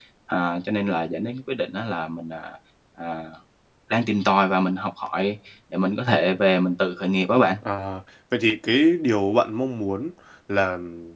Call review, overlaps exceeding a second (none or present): none